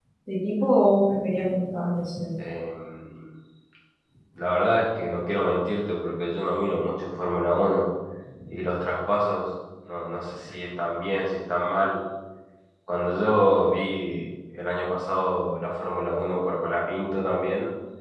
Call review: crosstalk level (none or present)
none